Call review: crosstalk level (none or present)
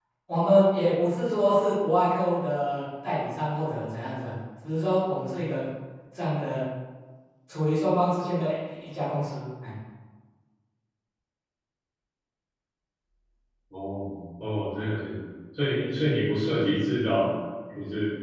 none